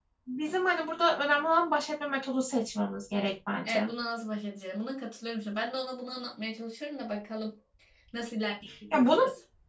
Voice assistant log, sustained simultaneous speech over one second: none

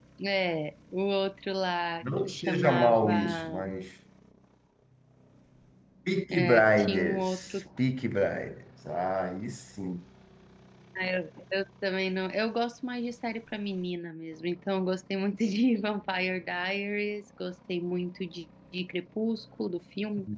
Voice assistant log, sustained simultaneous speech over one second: present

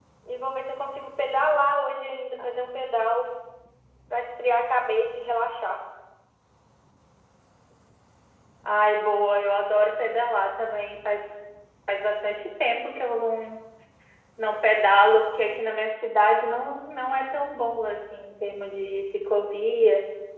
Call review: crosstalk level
none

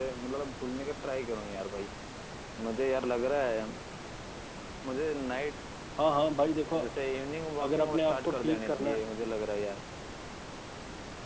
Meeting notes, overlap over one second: present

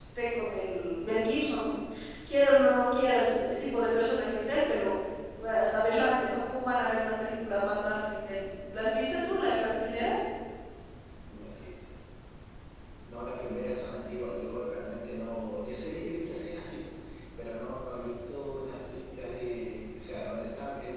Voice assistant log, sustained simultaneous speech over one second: none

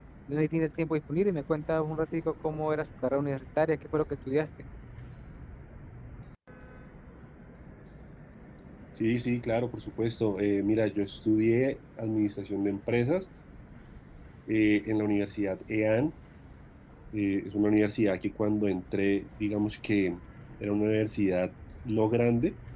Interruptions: none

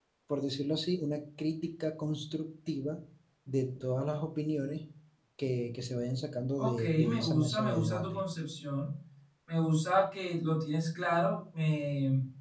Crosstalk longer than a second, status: present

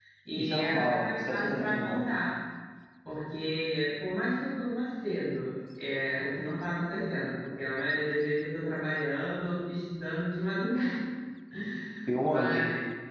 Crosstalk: present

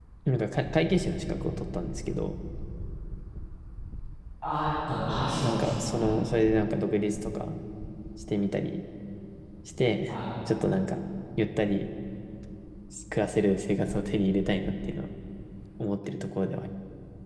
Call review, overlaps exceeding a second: present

